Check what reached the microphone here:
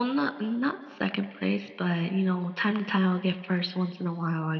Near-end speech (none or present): none